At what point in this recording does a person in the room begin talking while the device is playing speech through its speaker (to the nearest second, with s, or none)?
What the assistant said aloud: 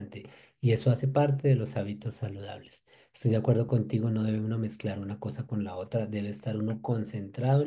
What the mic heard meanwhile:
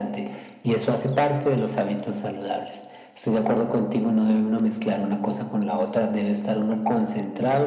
none